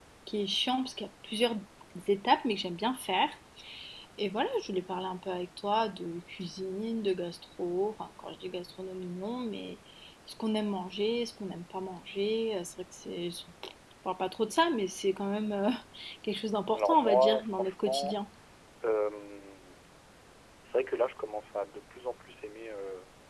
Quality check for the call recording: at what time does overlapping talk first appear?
17 s

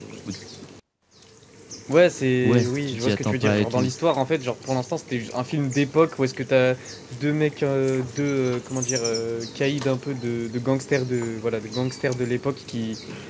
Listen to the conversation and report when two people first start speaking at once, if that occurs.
2 s

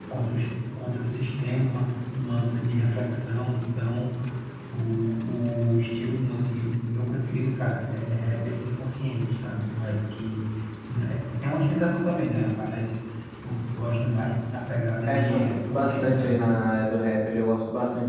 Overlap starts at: 15 s

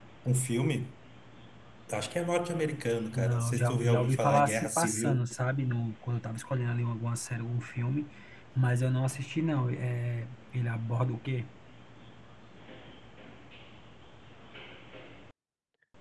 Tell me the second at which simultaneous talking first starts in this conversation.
3 s

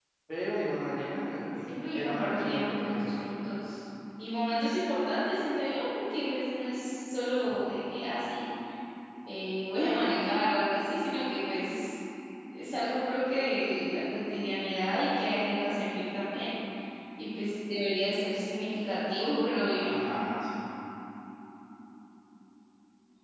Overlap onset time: 2 s

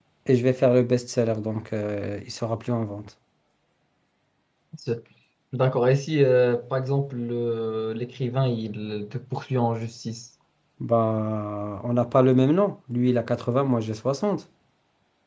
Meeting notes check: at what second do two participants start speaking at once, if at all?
none

